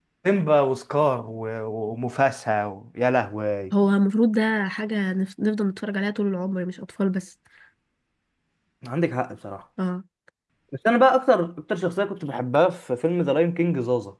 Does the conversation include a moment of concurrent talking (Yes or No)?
No